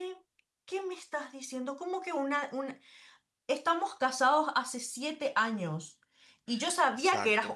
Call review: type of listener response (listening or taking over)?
listening